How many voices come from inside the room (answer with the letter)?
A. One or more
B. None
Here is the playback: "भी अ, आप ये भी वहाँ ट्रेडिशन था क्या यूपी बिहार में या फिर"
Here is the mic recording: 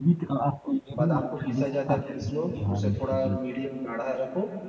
A